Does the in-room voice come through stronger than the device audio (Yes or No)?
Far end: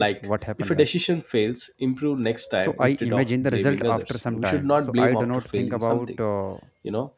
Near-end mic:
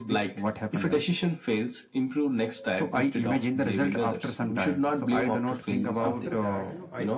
No